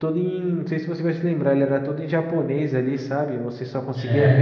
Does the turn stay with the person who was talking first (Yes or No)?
Yes